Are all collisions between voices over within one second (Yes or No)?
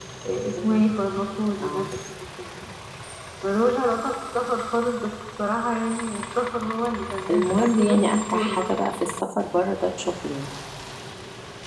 No